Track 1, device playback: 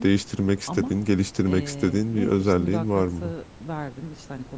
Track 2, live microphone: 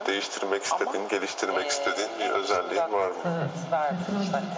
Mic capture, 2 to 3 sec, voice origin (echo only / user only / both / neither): echo only